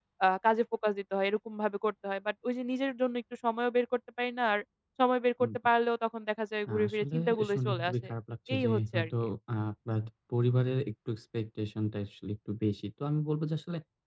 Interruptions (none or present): present